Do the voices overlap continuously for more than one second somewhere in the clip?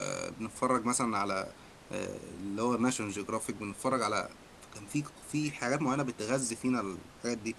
No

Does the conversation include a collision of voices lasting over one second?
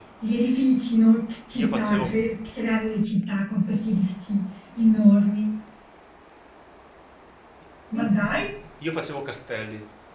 No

